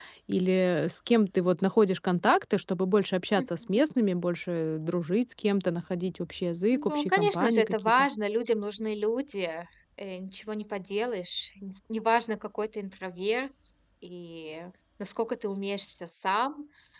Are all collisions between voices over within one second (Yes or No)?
No